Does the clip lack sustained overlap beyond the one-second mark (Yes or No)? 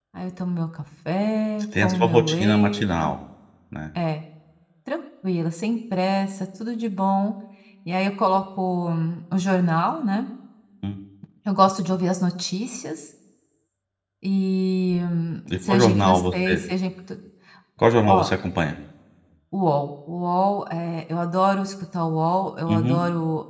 No